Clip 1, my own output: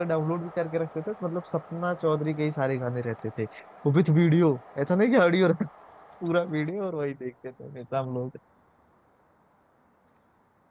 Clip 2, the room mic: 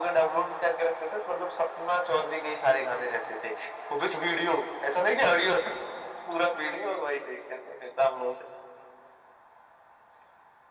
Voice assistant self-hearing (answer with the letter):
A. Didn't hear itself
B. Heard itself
B